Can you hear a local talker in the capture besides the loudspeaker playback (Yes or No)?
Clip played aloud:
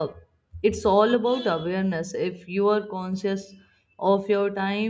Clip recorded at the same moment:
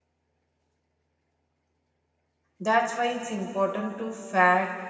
Yes